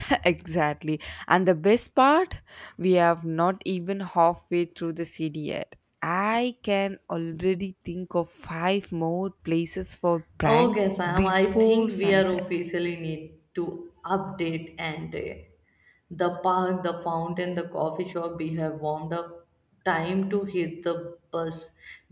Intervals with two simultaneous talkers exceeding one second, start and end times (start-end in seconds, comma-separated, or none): 10.4-12.4